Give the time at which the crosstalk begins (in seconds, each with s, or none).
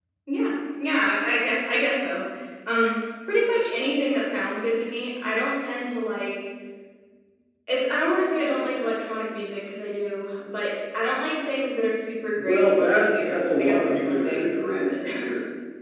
12.3 s